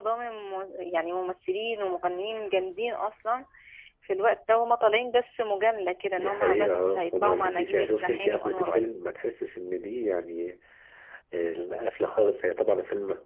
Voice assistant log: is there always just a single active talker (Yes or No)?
No